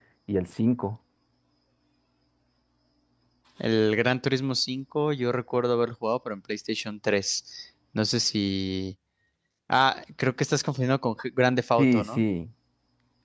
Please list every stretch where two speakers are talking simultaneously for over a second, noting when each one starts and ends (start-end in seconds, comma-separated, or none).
none